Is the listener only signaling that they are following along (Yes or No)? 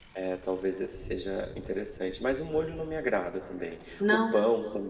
Yes